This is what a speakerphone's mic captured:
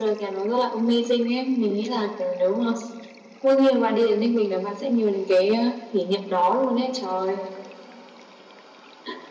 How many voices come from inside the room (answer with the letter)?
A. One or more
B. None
B